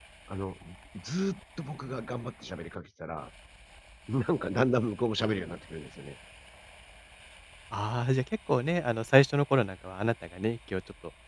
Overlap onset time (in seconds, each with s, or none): none